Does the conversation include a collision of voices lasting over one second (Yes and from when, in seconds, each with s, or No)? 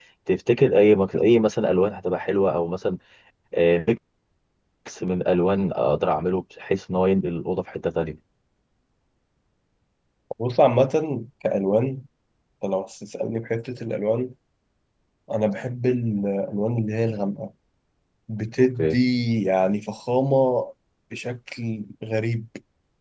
No